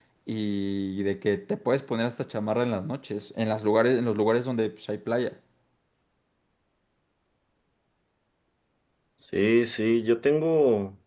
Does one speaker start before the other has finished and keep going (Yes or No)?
No